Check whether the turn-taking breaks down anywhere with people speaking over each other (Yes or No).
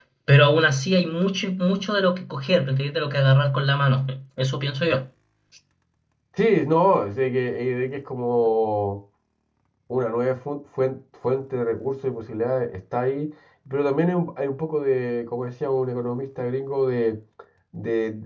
No